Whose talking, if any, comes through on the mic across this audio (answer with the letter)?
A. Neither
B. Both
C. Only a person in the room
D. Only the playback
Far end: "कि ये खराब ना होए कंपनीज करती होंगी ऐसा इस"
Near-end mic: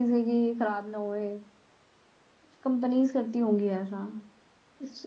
D